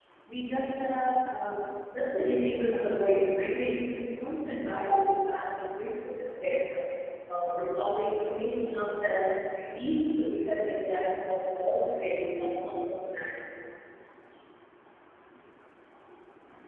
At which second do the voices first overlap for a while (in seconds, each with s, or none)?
2.3 s